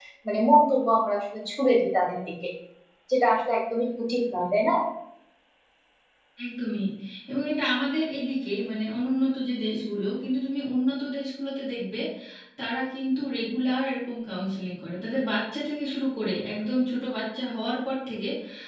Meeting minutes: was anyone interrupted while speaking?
No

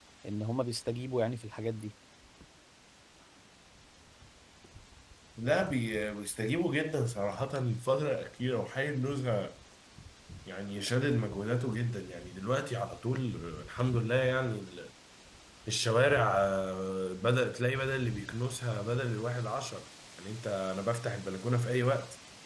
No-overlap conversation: Yes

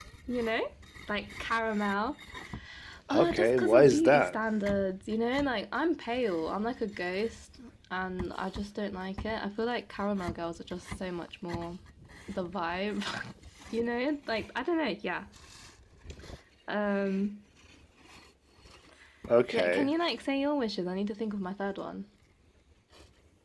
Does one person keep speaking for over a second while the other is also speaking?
Yes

